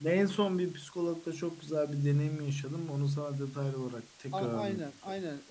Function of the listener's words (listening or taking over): taking over